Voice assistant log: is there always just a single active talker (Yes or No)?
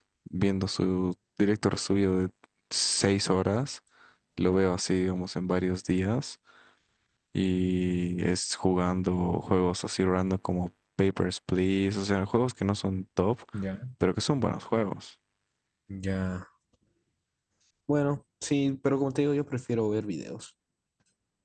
Yes